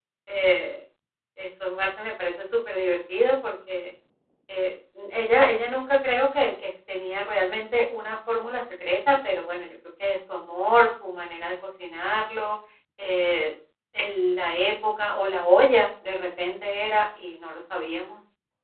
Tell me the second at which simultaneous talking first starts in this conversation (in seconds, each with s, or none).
none